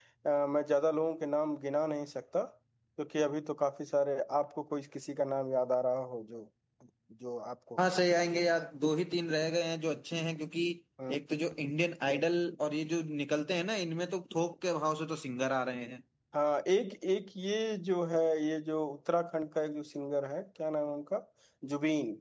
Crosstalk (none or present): none